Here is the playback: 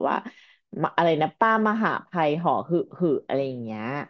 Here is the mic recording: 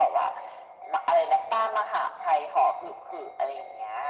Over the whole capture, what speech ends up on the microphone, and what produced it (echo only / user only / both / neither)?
echo only